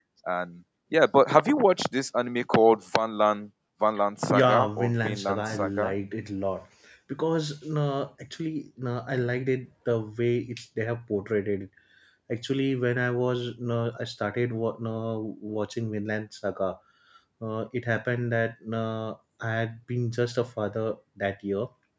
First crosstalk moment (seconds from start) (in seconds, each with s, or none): 4.3 s